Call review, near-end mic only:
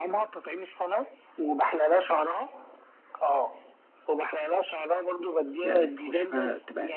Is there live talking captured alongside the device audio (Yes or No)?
Yes